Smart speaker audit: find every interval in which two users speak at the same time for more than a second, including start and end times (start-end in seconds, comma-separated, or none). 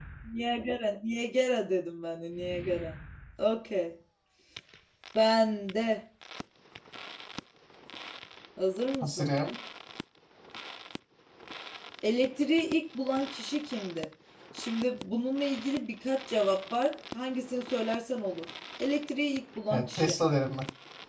none